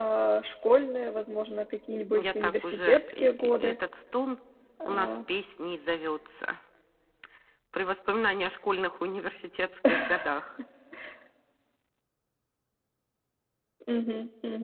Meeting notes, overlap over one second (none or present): present